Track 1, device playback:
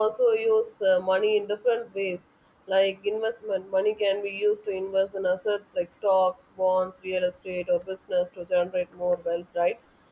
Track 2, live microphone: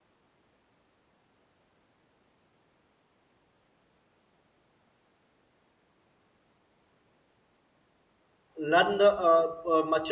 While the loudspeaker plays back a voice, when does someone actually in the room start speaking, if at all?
8.6 s

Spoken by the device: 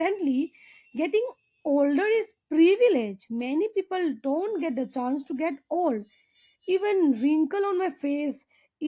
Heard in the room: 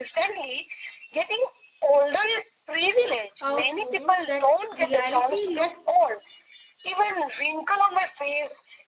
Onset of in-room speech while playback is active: 3.4 s

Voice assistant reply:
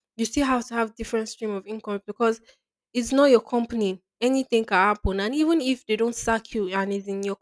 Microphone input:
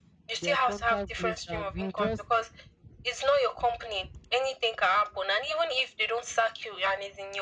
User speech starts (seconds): 0.4 s

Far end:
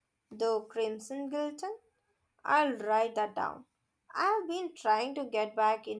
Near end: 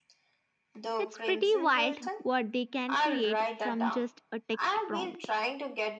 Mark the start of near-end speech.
1.0 s

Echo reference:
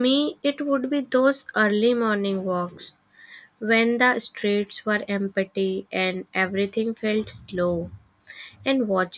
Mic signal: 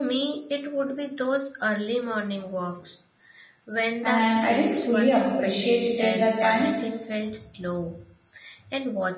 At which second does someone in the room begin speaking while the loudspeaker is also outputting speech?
4.0 s

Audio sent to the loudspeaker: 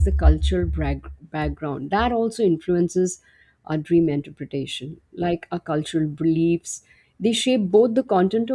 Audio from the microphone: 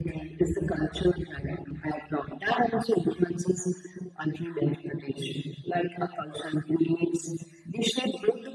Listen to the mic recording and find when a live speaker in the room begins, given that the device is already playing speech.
none

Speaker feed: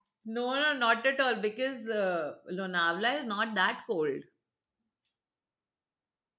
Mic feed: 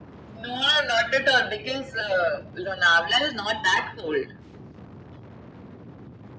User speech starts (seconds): none

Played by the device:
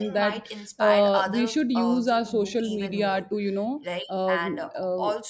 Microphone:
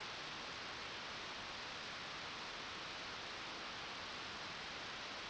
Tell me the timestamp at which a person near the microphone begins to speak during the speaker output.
none

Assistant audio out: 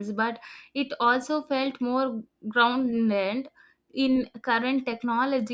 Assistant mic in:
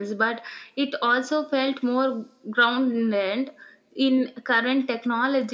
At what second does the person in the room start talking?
none

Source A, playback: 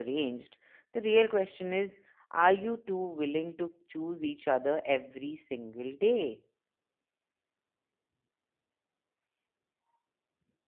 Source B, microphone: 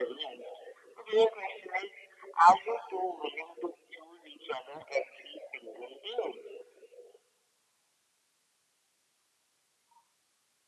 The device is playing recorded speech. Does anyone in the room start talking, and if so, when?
none

